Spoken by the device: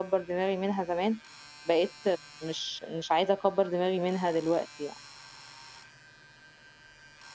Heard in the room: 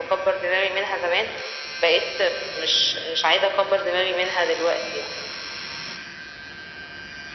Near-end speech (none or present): none